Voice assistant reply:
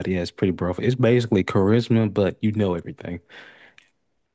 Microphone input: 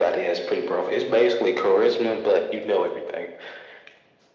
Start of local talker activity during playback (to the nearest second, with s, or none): none